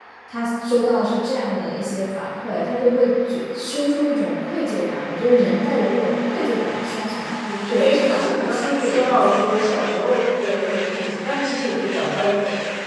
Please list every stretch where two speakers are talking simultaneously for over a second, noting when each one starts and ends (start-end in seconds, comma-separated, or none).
7.6-9.7